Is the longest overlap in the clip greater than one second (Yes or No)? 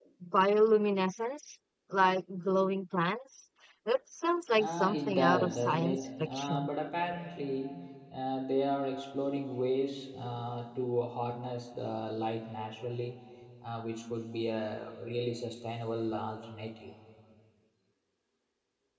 Yes